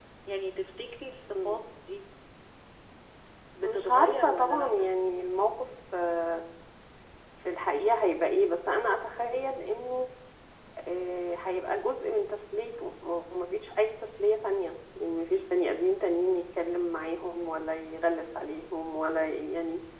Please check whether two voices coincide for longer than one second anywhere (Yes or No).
Yes